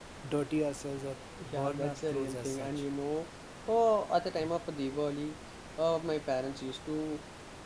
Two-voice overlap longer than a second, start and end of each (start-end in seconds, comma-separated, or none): 1.4-2.8